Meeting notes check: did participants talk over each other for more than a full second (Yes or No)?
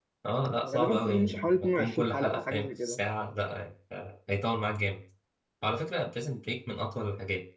Yes